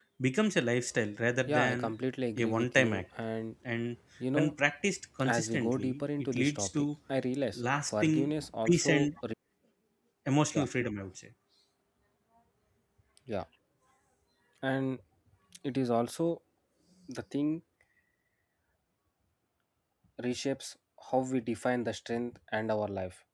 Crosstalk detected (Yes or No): Yes